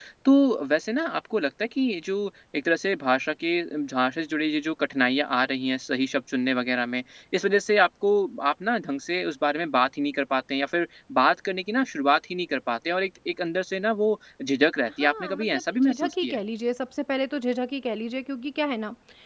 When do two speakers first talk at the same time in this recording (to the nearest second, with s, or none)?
15 s